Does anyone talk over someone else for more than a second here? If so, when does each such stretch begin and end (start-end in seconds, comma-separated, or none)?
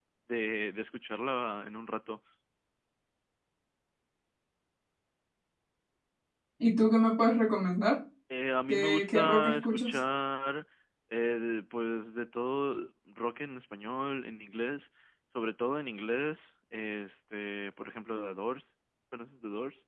8.7-10.0